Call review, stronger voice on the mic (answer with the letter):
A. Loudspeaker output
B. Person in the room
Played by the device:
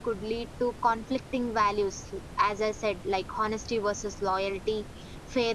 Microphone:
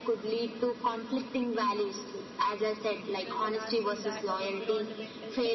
A